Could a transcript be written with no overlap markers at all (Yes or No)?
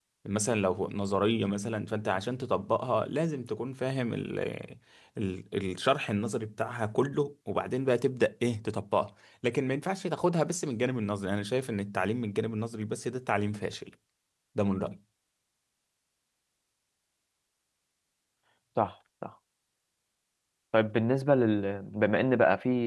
Yes